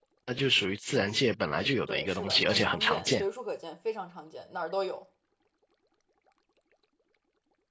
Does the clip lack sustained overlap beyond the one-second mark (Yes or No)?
No